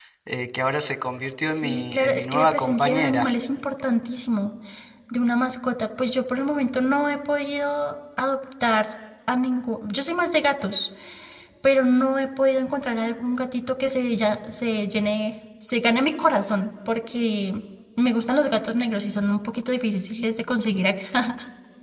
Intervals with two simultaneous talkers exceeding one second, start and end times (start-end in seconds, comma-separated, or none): 1.4-3.3